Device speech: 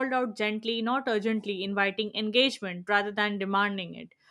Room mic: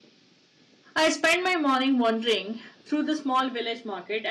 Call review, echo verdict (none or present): none